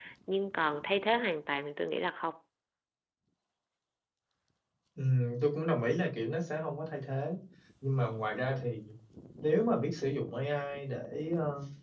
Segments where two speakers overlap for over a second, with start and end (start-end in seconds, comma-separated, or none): none